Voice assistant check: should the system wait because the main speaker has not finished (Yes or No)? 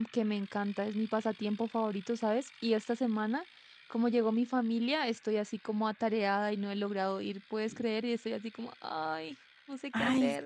No